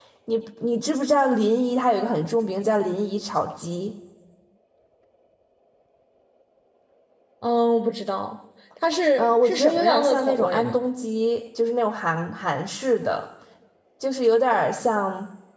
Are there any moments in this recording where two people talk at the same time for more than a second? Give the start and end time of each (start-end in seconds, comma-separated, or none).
9.2-10.8